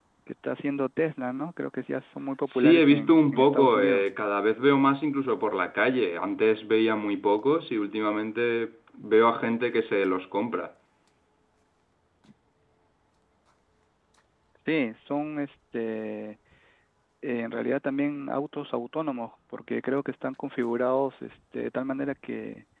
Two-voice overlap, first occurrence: 2.5 s

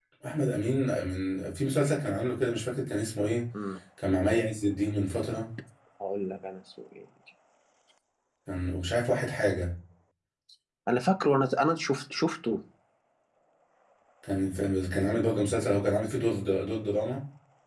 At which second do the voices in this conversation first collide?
none

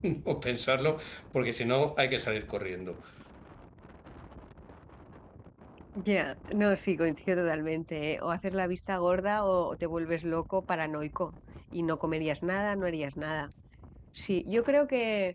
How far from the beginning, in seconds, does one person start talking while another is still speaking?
none

